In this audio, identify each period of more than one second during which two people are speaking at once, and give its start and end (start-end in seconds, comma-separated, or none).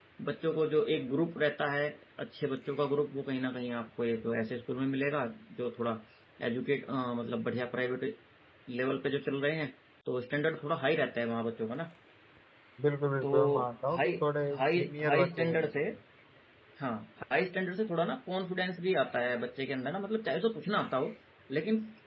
14.5-15.8